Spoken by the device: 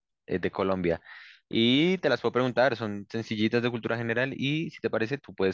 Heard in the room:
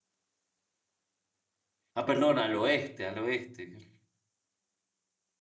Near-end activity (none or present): present